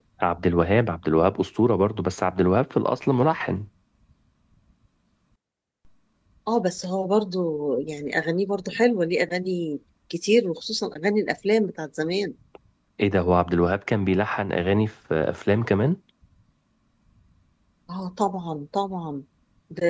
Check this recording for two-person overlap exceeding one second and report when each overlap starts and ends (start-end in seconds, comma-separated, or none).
none